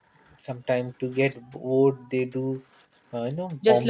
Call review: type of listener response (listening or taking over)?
taking over